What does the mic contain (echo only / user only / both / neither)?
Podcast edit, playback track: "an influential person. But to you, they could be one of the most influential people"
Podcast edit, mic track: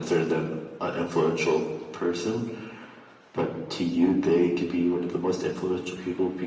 echo only